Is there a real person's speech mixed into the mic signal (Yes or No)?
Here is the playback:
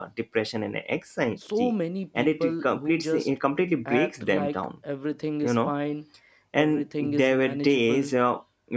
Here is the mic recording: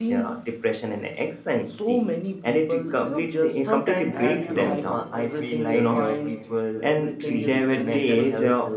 Yes